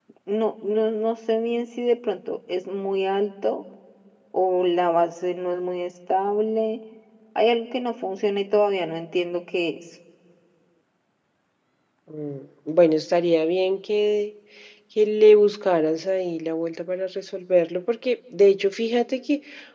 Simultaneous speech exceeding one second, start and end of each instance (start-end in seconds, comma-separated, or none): none